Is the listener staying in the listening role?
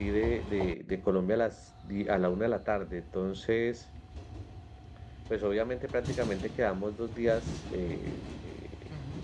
Yes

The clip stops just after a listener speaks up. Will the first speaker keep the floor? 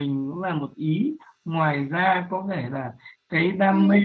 Yes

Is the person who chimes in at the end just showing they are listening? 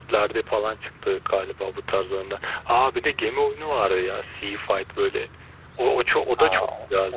No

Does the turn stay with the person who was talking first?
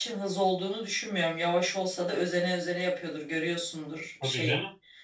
Yes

